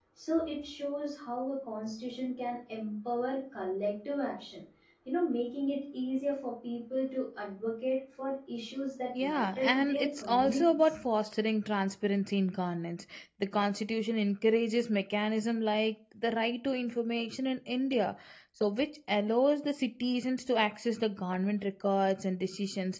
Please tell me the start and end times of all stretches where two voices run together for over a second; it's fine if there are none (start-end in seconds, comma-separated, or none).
9.2-10.9